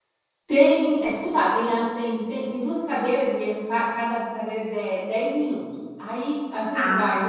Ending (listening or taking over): listening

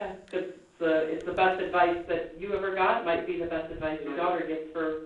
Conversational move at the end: listening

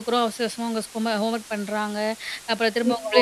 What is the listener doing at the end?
listening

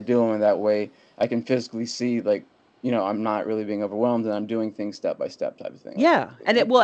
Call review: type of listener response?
taking over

